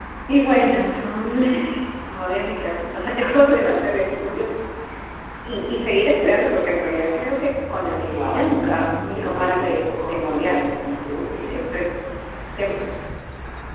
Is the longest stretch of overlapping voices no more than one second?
No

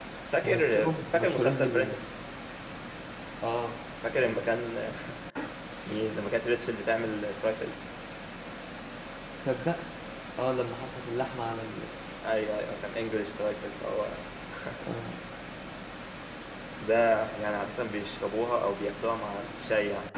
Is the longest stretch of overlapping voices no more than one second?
No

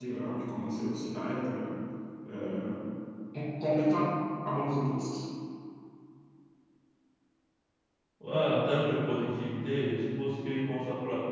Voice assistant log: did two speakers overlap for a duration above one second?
No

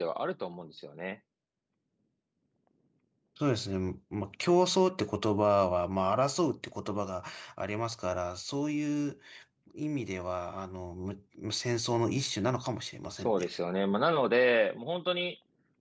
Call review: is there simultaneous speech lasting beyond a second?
No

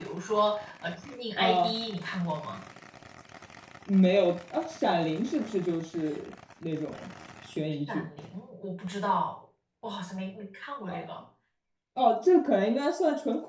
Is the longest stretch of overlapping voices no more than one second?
Yes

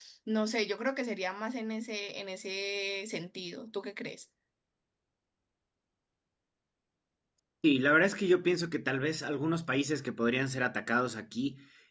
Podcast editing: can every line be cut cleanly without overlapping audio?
Yes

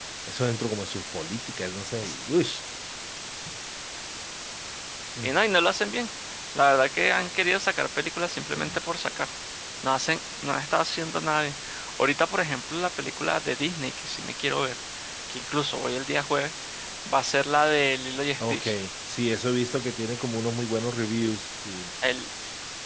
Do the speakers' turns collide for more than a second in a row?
No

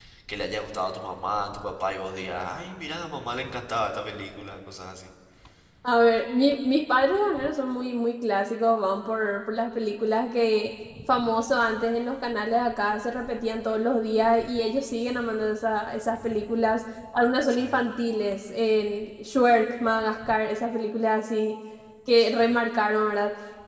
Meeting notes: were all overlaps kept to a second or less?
Yes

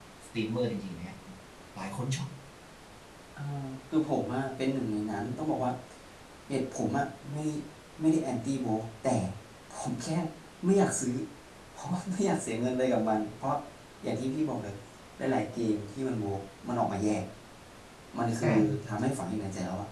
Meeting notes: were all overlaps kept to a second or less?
Yes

